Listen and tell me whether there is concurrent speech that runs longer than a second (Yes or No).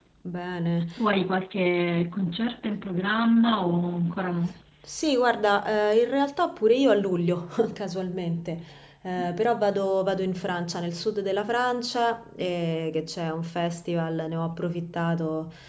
No